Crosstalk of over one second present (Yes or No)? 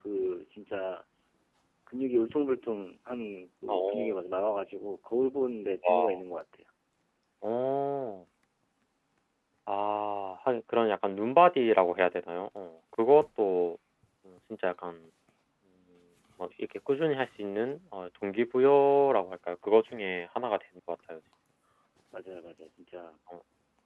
No